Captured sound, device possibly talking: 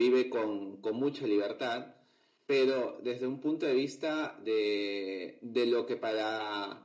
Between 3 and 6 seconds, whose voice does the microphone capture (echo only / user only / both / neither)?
echo only